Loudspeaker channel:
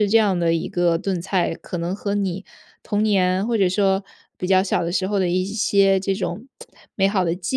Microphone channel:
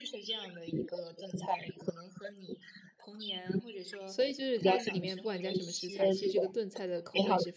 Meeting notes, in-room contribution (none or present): present